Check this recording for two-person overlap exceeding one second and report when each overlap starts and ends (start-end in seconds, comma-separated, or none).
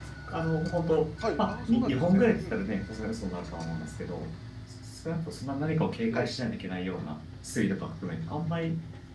1.4-2.6